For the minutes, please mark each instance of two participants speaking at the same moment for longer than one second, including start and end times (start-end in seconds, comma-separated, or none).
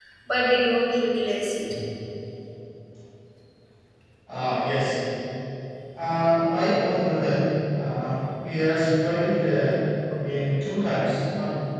none